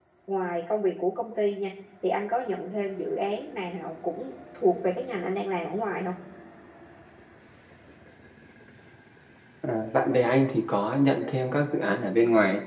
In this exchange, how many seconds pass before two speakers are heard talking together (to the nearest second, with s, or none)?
none